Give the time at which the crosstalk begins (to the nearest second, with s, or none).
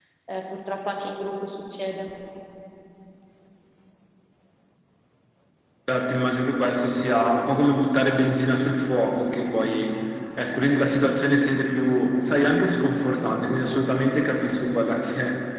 none